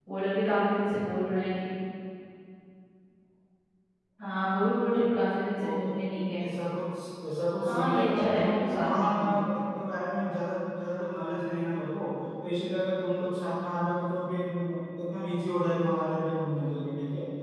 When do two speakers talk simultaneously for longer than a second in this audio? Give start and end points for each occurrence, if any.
7.6-9.4

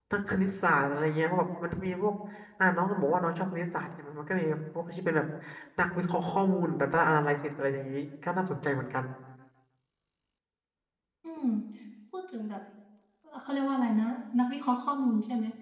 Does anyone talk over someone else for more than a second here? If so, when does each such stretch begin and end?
none

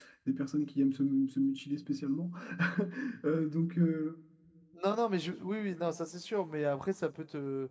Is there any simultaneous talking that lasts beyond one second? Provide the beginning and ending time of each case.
none

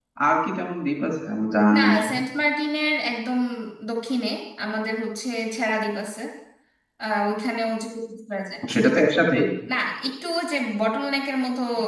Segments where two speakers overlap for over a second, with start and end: none

